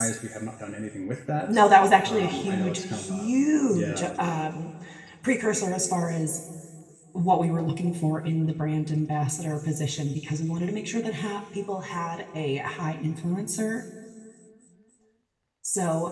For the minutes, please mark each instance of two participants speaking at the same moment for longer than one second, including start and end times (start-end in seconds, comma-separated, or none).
2.0-3.3